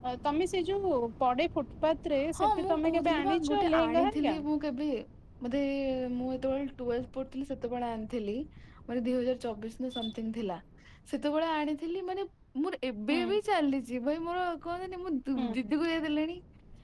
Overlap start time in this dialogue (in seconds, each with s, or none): 2.4 s